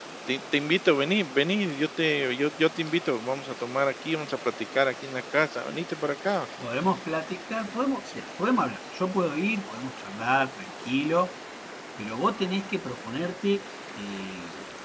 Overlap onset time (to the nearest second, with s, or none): none